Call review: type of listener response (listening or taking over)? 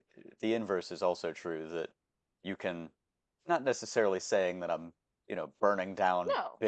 listening